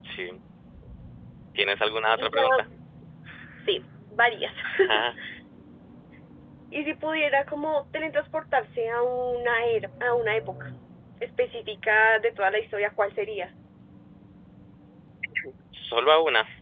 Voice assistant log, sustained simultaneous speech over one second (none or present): none